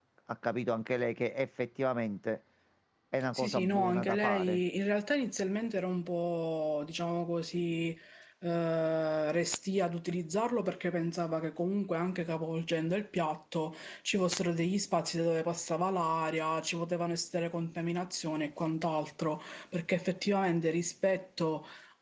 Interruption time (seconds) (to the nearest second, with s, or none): 3 s